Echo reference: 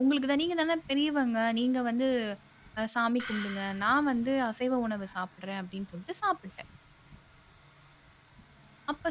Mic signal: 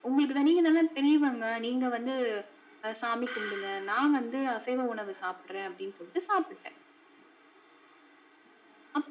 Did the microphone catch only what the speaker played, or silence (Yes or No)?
Yes